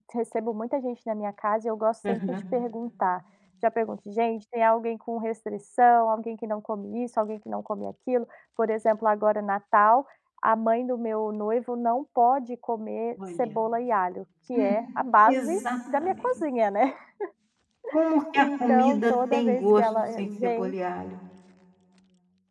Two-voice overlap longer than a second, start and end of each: 18.4-20.7

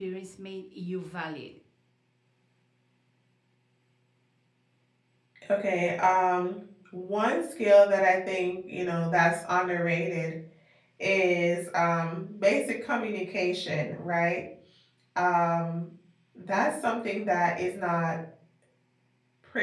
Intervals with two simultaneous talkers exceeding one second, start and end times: none

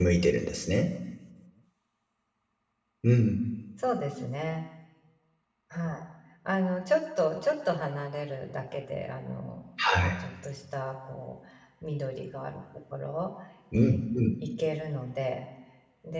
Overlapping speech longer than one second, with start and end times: none

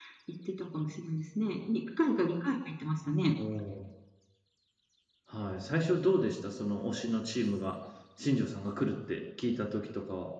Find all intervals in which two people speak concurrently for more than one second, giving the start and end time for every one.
none

